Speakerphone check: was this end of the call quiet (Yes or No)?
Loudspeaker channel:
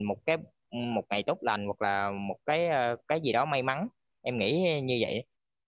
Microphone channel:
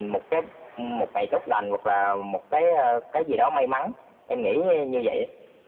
Yes